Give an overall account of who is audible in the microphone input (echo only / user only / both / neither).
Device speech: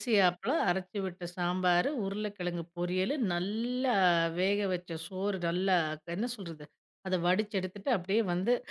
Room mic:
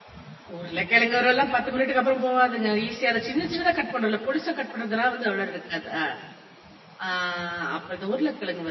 user only